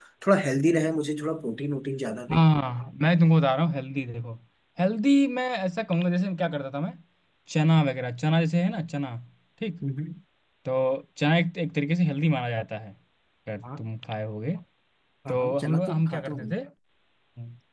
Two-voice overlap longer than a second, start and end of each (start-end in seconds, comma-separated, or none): 15.3-16.5